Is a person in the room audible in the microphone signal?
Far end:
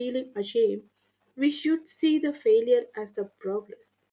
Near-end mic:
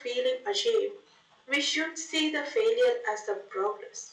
No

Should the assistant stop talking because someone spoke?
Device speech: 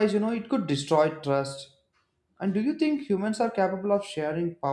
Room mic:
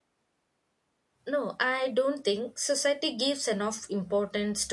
Yes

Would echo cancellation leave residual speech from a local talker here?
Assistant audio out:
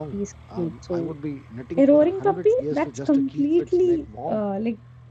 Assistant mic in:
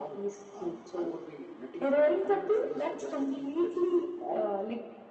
No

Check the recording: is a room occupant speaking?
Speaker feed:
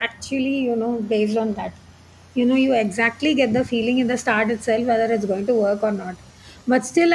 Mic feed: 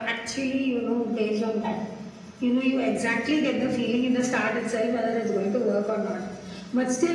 No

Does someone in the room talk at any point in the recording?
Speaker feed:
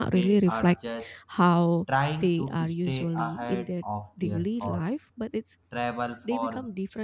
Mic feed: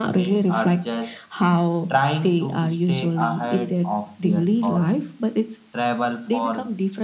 No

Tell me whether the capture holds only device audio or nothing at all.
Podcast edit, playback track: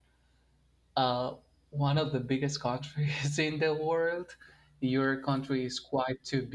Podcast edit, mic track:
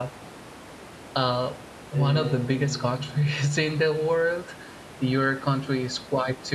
No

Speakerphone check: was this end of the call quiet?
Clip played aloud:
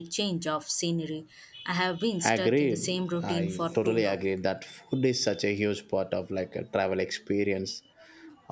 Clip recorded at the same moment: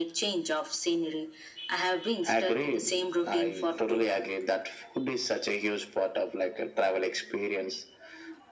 Yes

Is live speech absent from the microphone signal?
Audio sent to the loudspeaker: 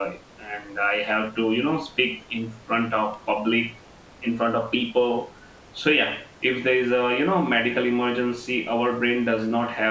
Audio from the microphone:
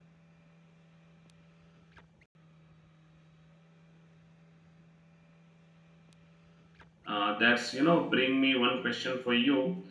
No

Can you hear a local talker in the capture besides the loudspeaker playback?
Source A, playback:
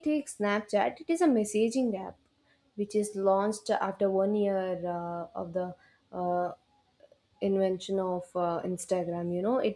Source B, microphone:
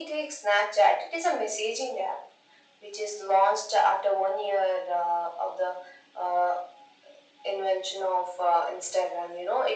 No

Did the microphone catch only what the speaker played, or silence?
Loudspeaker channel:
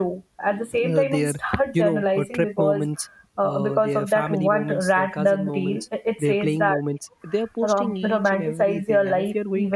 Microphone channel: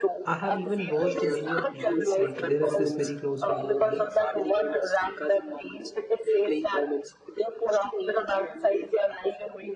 No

